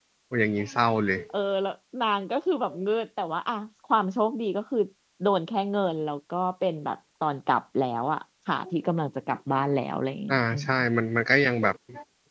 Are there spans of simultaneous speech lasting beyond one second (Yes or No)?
No